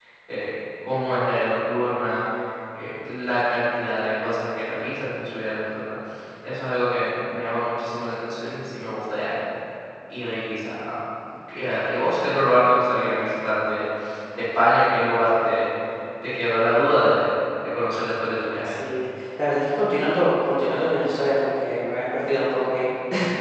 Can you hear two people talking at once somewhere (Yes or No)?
No